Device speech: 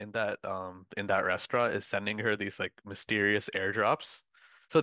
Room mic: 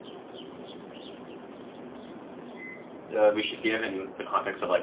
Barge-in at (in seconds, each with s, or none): 3.1 s